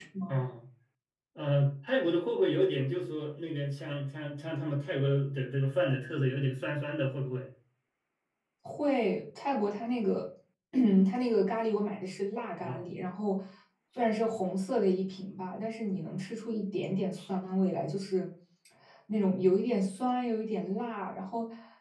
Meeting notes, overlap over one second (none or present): none